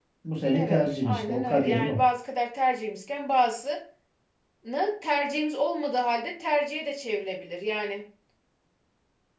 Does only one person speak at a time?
No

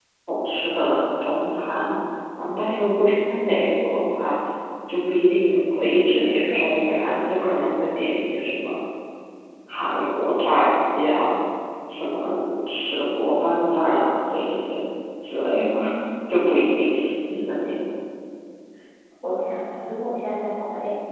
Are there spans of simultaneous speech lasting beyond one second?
Yes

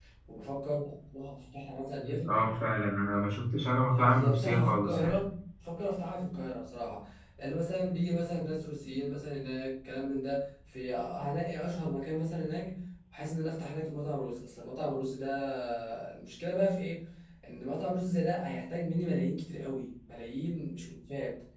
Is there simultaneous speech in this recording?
Yes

